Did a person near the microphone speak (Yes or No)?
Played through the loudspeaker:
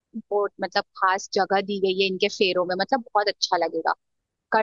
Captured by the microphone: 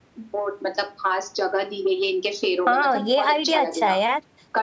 Yes